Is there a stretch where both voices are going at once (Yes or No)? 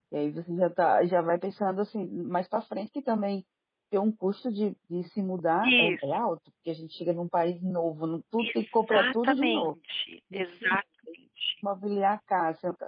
Yes